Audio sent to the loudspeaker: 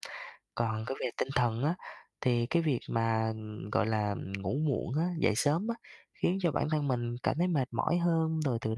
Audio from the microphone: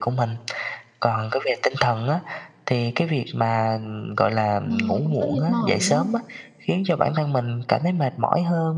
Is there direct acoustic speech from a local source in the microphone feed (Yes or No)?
Yes